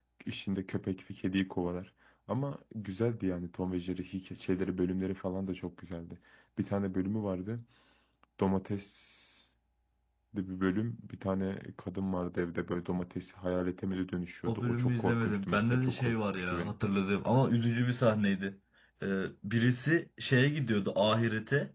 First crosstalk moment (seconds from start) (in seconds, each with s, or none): 14.5 s